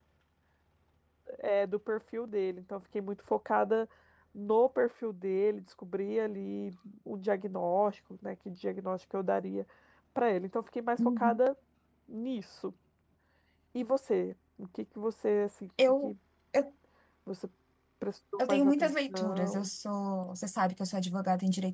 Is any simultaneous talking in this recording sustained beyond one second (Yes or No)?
Yes